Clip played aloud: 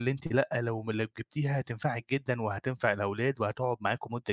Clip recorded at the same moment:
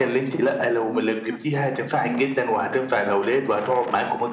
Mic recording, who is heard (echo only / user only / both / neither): both